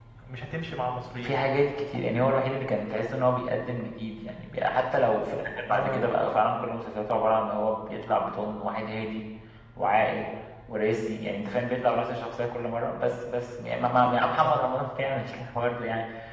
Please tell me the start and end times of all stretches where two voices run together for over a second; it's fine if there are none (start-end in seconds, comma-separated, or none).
none